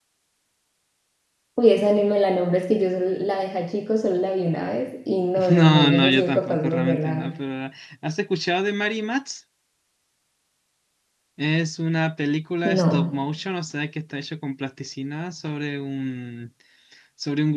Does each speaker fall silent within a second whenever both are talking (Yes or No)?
No